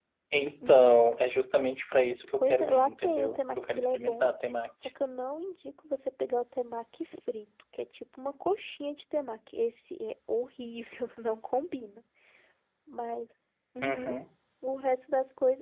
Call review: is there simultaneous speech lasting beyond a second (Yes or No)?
Yes